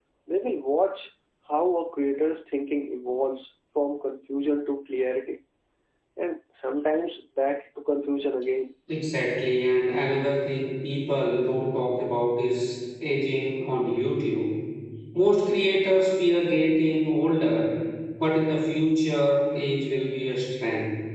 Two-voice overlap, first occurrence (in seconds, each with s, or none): none